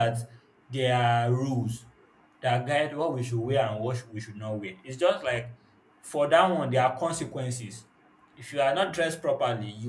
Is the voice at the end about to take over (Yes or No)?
No